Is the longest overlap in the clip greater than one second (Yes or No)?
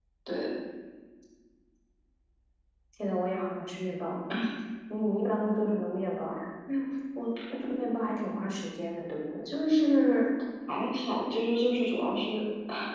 No